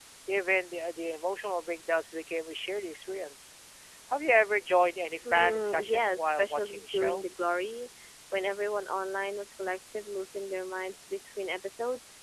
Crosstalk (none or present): present